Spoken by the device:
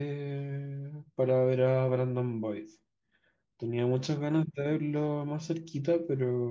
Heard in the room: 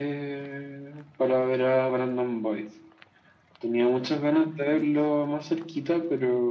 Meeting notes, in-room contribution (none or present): none